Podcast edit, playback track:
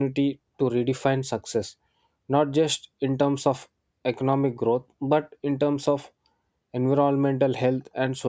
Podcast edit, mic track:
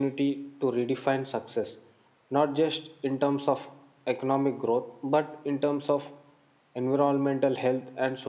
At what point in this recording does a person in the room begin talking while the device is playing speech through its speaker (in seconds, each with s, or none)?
none